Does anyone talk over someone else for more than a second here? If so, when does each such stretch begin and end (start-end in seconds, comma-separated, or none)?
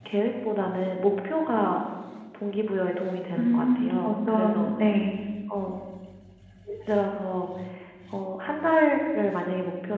3.4-4.7